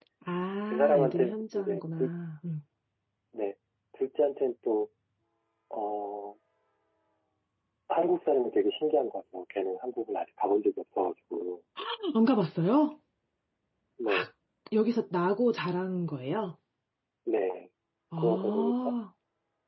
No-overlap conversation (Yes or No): No